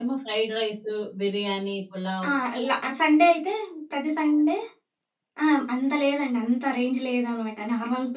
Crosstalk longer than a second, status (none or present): none